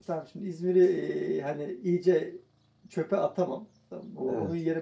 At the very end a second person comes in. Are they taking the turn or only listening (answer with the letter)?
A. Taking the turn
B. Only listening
B